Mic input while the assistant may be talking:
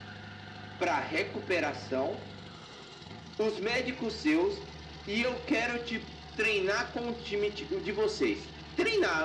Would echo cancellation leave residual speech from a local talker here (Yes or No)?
No